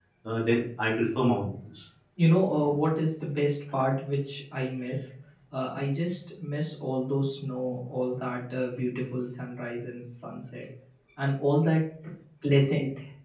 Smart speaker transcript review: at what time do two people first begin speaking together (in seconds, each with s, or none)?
none